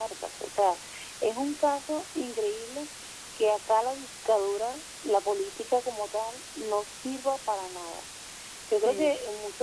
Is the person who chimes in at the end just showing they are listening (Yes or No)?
Yes